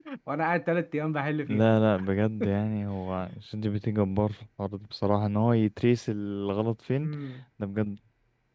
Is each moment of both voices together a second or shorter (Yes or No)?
Yes